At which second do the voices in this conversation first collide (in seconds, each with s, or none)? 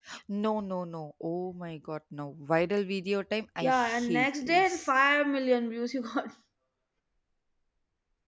3.6 s